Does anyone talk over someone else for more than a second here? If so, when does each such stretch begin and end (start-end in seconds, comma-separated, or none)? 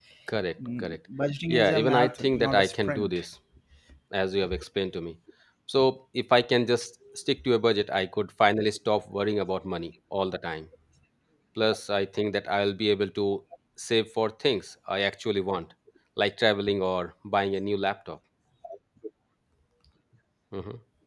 1.5-3.2